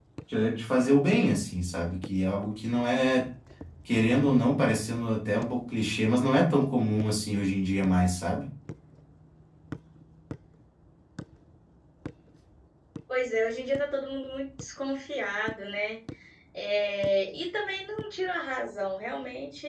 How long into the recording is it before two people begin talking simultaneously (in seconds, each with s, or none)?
none